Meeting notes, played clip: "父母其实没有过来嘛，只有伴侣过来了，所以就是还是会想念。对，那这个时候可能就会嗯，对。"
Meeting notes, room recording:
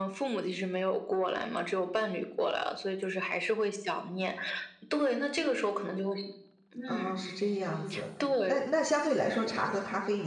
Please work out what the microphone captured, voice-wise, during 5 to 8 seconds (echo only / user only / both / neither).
both